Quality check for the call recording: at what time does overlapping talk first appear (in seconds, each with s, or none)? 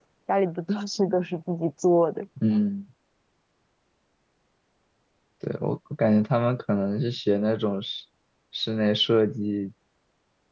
none